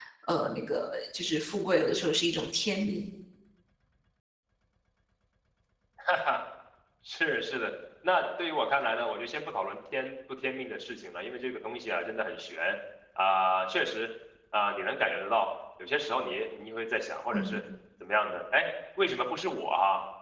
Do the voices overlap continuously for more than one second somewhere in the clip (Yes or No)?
No